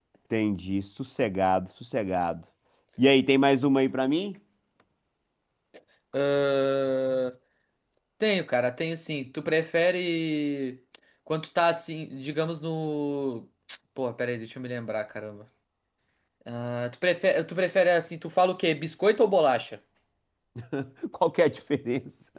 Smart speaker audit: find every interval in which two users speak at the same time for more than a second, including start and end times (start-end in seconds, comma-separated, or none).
none